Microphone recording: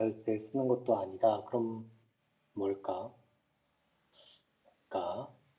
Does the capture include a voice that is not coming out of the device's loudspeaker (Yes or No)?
Yes